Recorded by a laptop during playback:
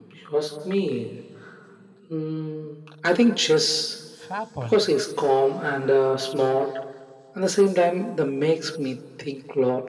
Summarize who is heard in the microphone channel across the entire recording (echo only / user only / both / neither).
both